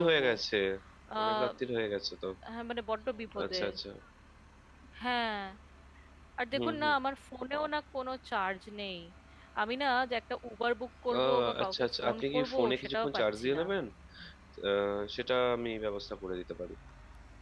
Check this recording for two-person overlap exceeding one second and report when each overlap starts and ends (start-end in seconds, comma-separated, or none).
11.2-13.6